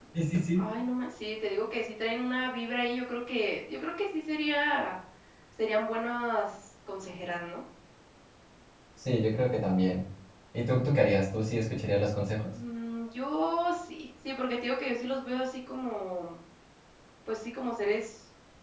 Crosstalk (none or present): none